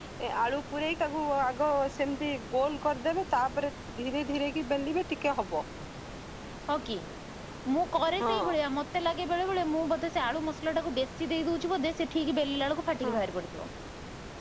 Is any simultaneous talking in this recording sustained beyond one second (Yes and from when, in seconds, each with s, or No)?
No